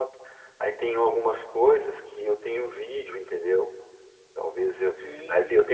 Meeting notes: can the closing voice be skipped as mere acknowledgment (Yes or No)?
No